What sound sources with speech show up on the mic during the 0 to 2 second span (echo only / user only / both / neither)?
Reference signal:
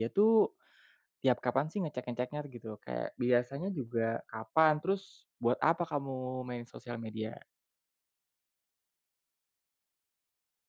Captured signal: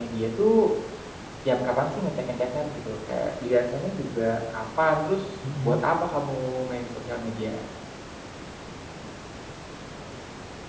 echo only